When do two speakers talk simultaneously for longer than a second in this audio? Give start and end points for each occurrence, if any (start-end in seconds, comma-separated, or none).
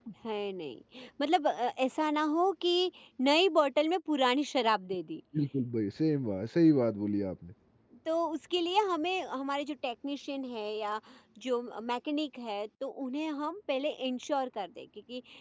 none